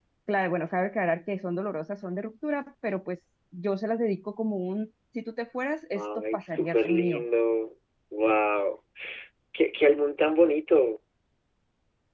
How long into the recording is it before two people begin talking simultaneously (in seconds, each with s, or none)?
6.0 s